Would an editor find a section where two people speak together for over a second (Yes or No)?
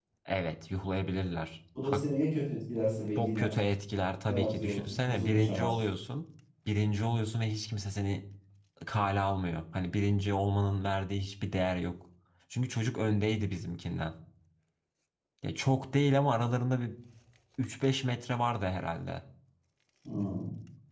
Yes